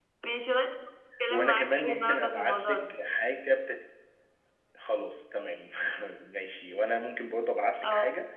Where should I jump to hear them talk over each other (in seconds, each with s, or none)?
1.3 s